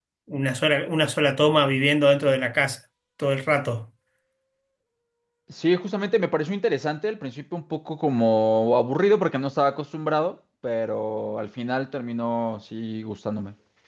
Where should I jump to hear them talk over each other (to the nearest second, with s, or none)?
none